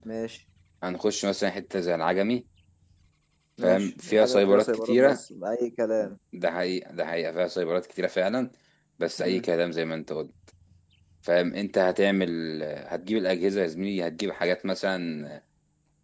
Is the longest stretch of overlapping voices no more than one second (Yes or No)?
No